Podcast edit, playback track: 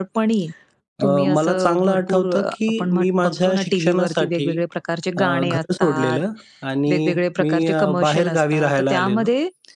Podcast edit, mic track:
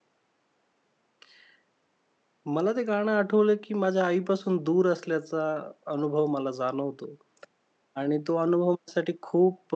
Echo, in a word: none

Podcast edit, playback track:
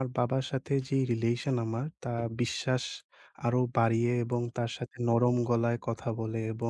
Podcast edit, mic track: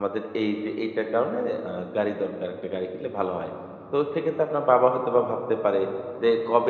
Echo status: none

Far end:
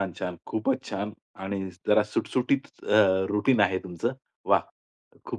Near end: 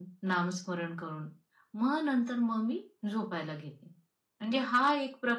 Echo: none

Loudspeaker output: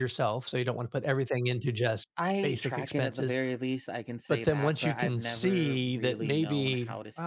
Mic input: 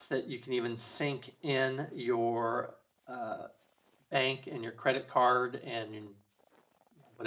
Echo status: none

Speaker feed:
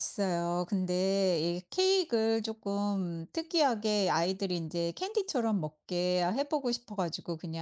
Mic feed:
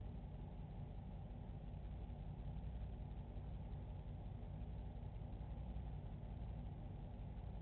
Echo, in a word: none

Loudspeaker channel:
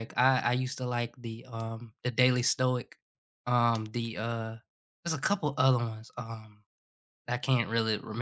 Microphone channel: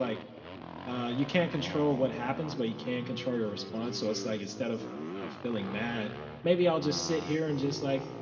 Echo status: none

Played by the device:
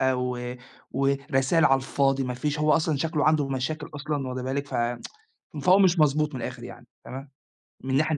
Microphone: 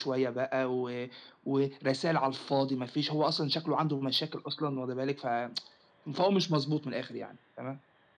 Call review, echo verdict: present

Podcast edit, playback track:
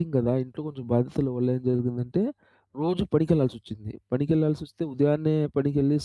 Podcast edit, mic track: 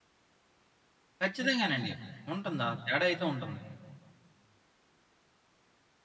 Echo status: none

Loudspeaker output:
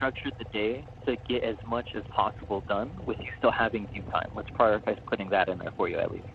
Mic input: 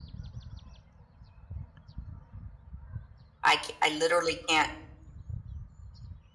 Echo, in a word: none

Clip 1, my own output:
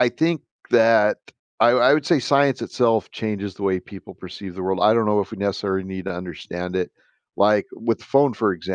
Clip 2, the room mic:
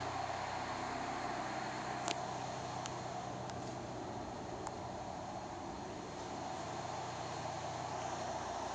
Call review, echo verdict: none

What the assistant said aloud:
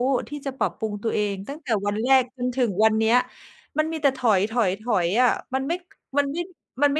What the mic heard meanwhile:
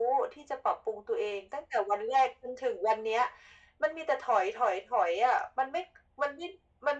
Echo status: present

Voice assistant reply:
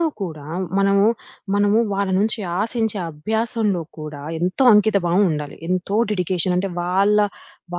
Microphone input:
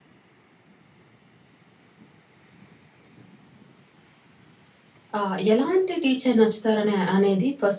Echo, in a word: none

